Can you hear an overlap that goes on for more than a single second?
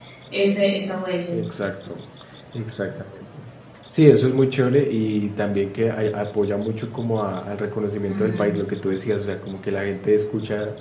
No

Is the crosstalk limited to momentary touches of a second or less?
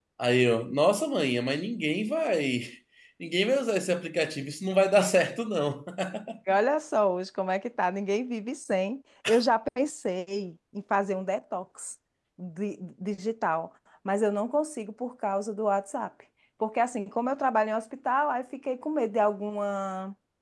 Yes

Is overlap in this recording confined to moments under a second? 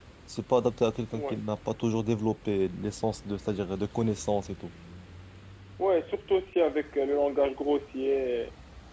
Yes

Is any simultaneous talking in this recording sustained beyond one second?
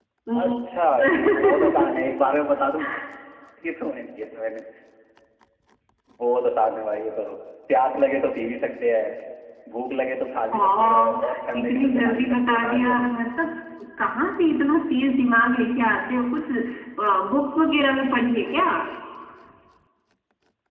Yes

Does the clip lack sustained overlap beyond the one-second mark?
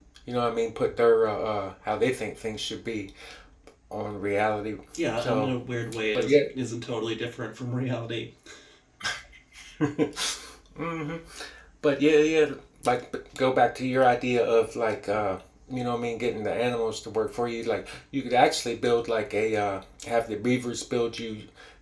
Yes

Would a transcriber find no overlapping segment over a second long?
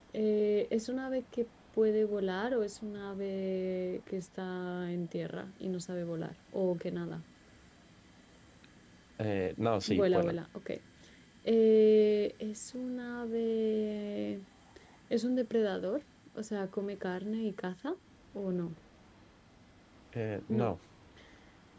Yes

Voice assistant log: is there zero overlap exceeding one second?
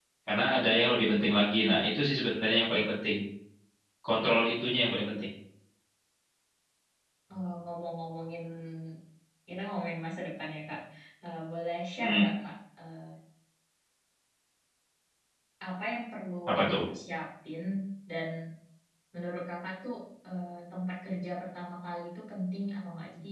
Yes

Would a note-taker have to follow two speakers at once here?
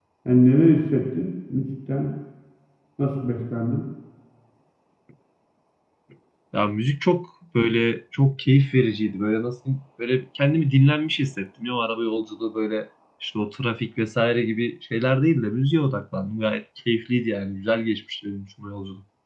No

